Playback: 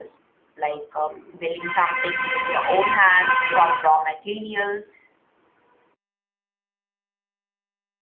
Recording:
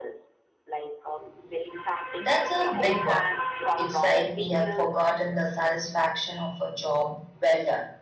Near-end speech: present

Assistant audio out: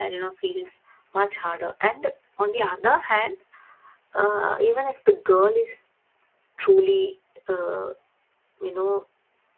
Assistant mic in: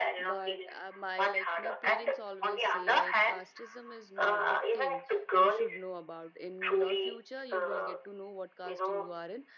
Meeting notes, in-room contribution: present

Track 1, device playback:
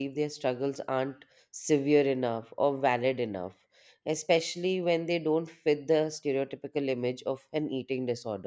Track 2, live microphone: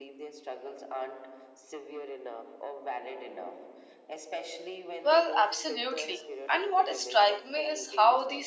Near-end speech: present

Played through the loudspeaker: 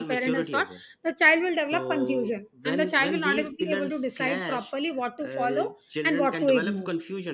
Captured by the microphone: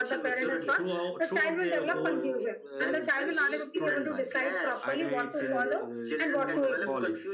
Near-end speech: present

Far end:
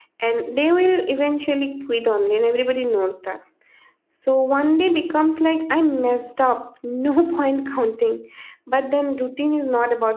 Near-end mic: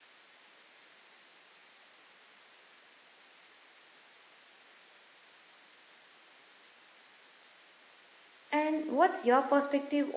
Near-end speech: present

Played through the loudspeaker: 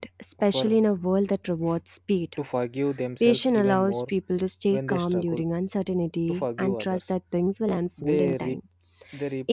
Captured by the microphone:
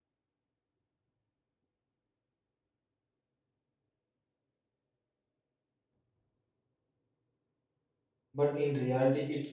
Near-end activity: present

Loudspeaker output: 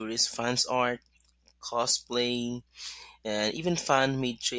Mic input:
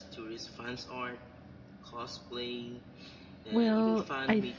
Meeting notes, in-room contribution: present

